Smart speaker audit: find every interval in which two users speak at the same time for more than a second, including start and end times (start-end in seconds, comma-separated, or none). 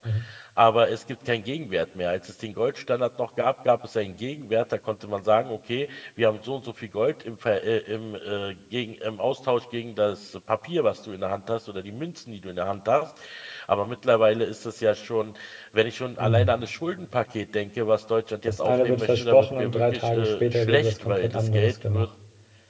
18.5-22.1